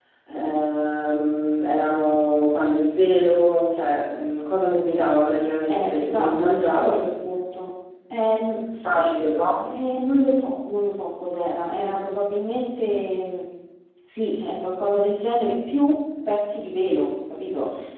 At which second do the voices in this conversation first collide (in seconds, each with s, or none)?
5.7 s